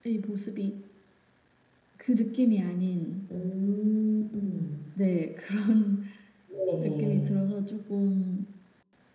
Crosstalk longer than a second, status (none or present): none